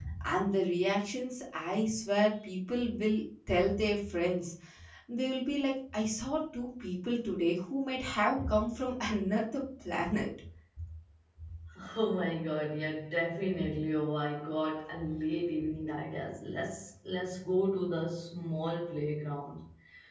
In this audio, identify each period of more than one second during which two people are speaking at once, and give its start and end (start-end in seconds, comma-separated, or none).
none